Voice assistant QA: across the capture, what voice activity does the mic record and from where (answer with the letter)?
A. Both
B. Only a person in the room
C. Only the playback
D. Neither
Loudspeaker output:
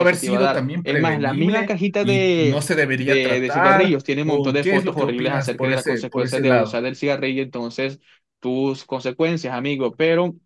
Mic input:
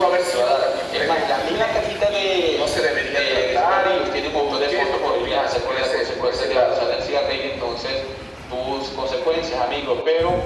C